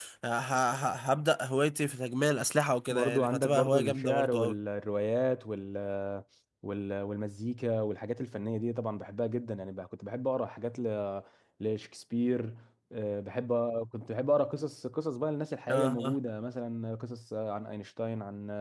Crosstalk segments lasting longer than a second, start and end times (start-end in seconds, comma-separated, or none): 2.9-4.5